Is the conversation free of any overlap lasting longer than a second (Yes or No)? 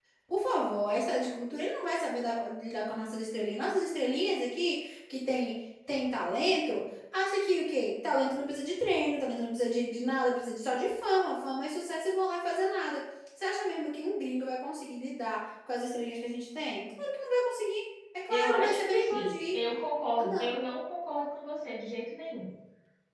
No